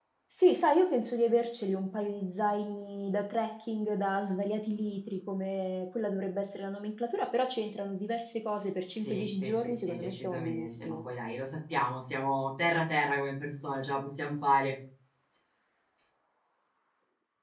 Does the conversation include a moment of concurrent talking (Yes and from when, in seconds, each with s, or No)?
Yes, from 8.9 s